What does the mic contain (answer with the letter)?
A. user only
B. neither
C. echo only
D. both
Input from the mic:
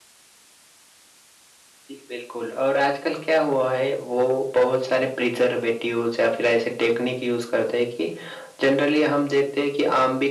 C